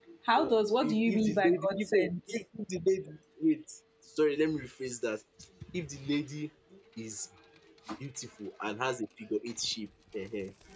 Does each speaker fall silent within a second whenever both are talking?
No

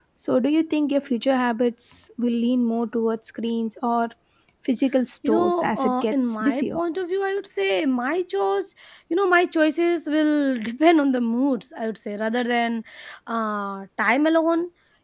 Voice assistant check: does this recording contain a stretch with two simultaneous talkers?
Yes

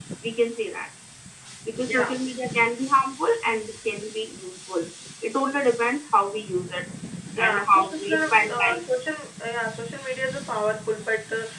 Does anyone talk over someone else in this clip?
Yes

